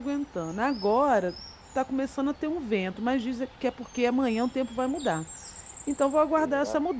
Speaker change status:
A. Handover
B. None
B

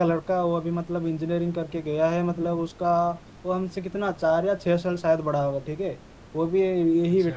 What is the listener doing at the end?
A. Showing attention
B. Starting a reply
A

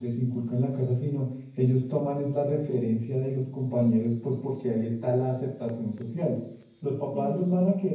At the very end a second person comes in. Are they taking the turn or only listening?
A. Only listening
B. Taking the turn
A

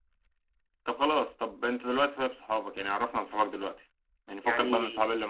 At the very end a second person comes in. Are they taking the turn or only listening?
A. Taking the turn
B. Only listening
B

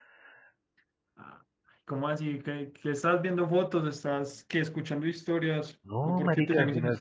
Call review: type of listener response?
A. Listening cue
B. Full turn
B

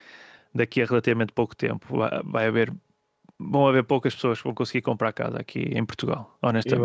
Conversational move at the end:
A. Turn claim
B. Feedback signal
A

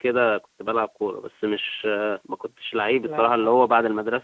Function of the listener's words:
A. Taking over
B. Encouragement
B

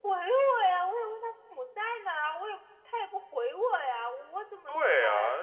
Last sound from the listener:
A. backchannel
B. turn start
B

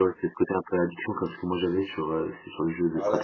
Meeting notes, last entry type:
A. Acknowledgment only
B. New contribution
B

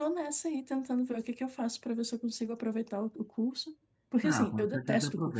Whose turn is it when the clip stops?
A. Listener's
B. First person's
A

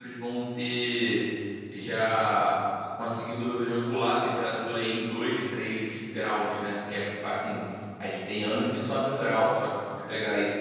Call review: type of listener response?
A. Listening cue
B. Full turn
A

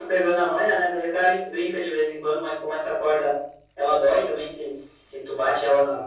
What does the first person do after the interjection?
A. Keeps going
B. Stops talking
A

